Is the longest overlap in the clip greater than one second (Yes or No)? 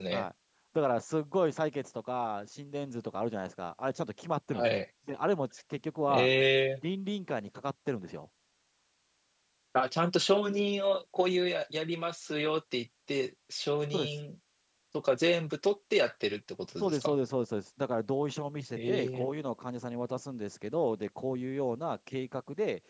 No